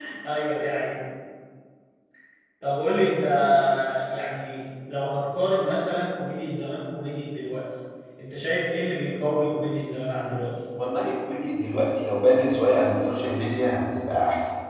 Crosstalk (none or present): none